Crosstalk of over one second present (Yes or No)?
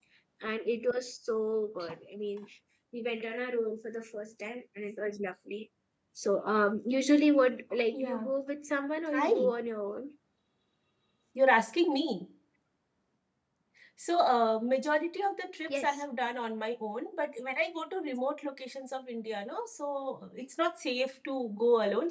No